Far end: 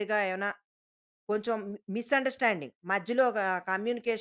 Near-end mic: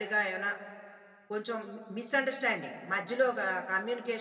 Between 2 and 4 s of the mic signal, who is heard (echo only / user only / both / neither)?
echo only